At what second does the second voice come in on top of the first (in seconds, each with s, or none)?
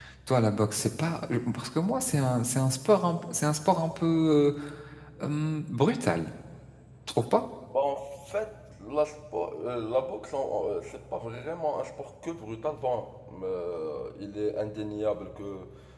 none